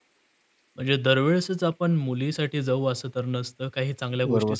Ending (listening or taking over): listening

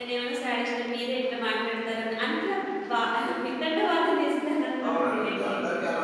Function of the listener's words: taking over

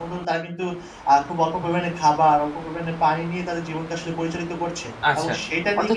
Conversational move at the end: taking over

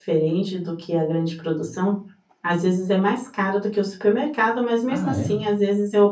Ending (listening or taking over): listening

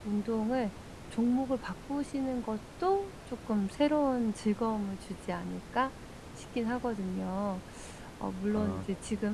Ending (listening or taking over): listening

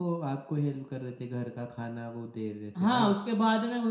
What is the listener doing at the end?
taking over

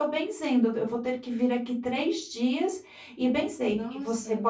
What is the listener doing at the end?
listening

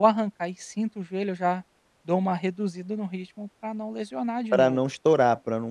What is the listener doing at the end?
taking over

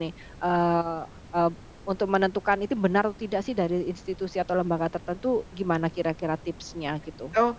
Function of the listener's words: taking over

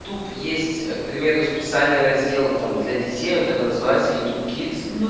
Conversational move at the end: taking over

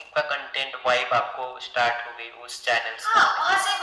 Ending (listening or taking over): taking over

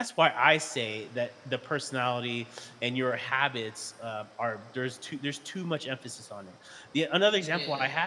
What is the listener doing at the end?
listening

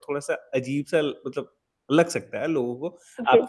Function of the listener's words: listening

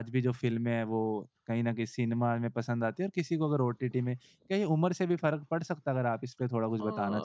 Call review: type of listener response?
taking over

